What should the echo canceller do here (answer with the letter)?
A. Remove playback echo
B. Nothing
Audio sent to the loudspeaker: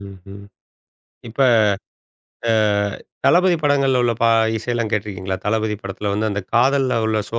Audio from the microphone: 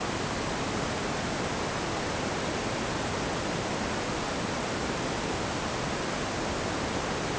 B